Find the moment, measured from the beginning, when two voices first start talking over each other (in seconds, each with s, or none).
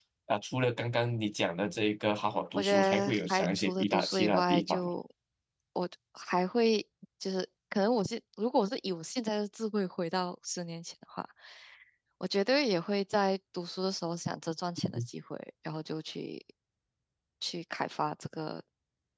2.6 s